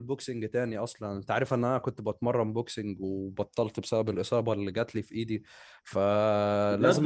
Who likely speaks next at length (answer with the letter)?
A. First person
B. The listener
B